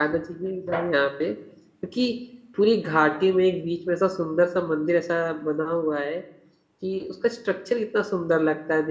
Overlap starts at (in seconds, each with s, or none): none